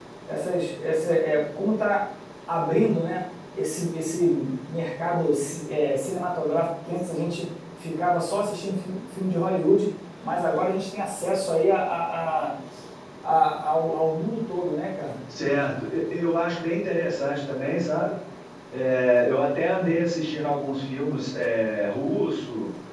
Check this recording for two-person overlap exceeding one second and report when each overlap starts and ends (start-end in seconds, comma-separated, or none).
none